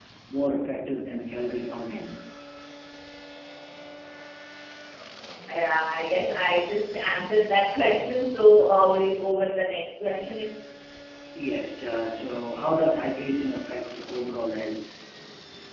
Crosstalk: none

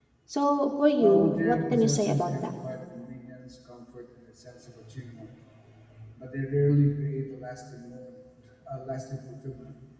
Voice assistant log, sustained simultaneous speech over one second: present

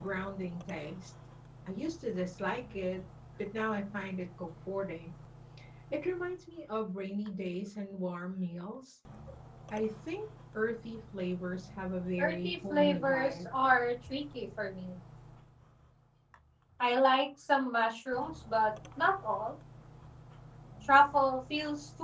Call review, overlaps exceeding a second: present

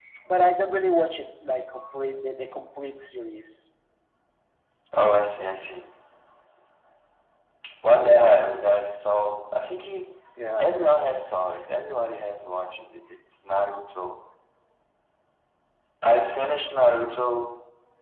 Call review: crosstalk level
none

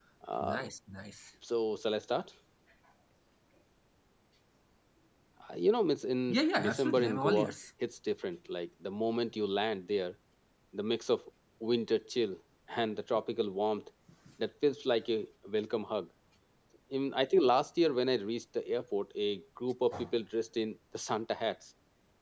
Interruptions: present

